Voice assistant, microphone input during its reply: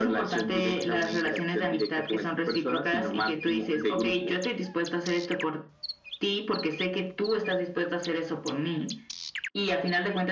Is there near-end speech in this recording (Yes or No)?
No